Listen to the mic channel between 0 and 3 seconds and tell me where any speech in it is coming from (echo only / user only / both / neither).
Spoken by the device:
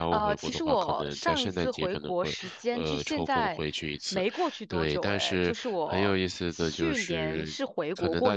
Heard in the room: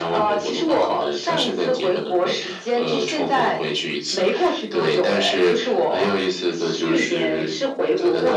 echo only